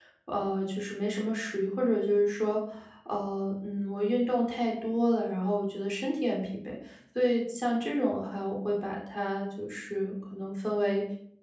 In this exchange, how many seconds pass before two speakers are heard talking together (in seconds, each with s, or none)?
none